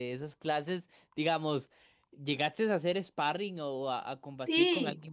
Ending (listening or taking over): taking over